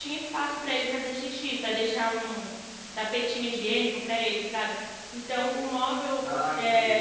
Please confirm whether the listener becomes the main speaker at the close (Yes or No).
No